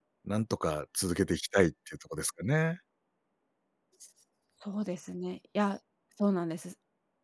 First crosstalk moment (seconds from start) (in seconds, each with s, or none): none